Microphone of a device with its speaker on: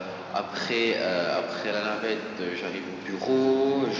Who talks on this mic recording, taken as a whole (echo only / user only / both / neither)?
echo only